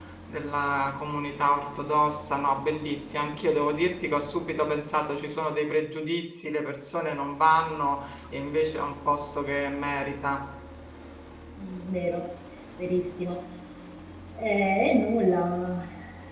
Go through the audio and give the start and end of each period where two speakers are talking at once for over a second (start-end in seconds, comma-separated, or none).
none